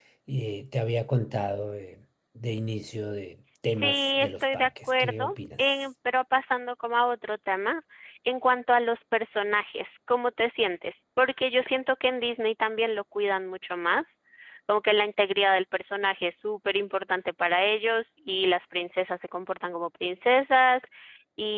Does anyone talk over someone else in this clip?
Yes, from 3.8 s

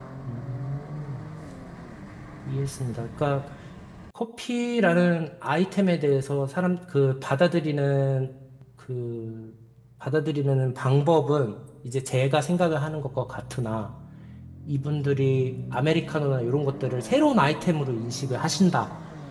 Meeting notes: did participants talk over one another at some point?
No

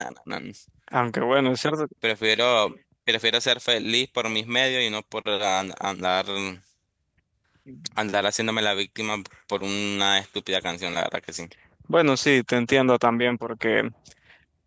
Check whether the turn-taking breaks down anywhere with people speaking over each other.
No

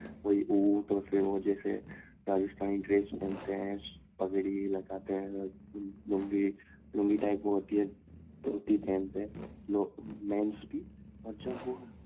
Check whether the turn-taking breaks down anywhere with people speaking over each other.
No

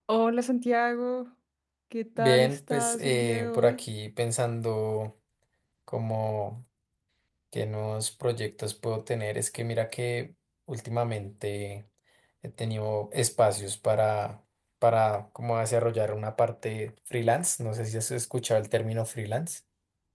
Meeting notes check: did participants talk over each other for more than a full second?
Yes, from 2.2 s

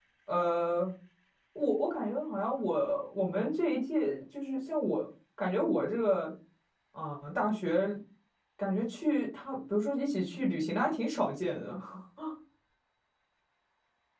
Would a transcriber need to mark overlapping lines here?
No

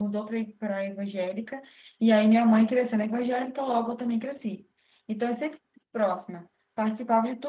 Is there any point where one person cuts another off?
No

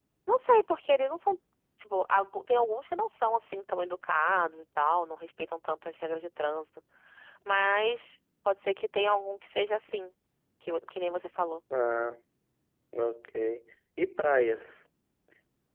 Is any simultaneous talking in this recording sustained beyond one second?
No

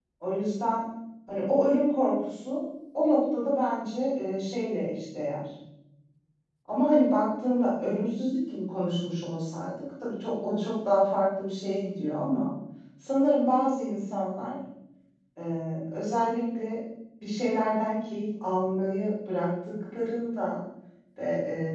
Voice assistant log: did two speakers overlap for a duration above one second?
No

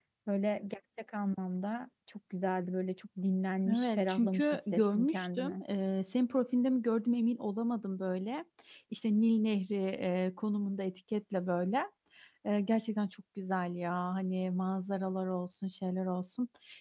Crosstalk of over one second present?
Yes, from 3.7 s

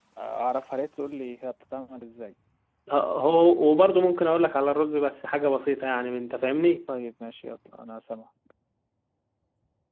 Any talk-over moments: No

